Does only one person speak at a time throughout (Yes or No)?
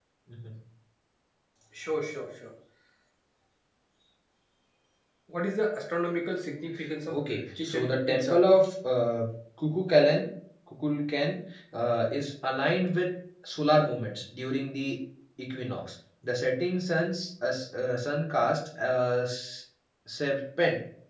No